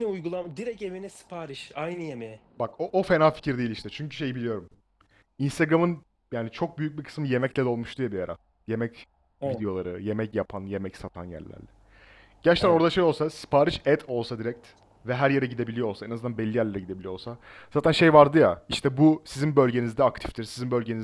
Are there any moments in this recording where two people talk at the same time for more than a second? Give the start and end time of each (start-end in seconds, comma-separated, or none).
none